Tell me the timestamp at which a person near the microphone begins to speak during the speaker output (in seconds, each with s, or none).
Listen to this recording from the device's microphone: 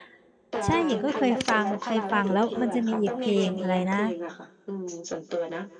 0.6 s